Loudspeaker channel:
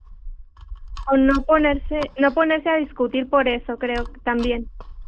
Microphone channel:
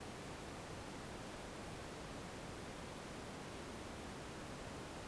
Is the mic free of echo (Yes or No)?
Yes